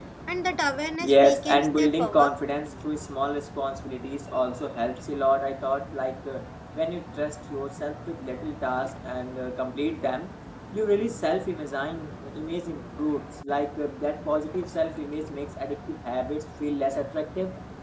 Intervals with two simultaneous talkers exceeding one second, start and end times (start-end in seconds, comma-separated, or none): 1.0-2.3